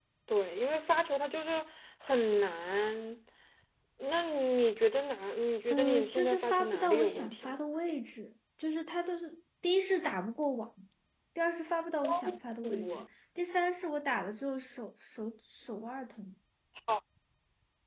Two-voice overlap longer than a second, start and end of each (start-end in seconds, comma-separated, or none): 5.7-7.6